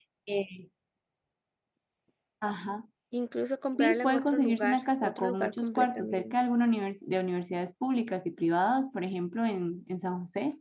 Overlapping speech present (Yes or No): Yes